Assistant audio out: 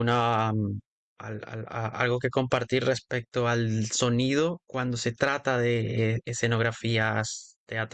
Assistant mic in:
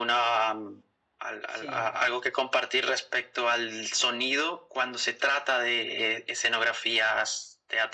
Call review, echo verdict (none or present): present